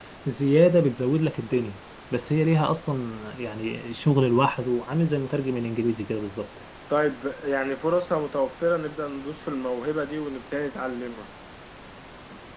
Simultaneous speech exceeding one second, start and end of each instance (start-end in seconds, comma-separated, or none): none